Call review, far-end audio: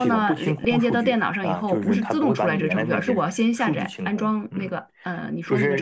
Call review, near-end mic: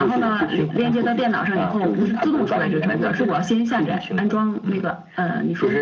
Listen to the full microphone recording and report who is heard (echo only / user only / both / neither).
echo only